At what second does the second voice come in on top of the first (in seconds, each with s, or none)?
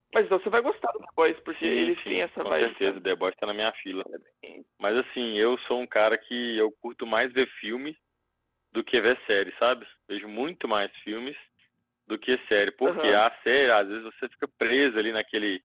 1.5 s